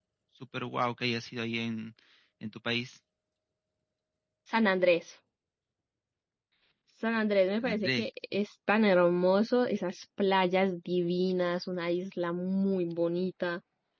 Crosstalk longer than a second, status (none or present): none